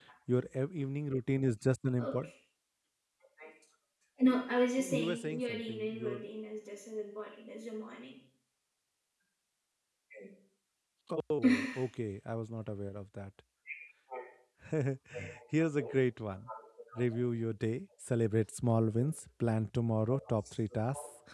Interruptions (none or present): present